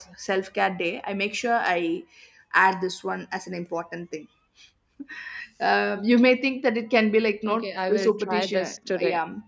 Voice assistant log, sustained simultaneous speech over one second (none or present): present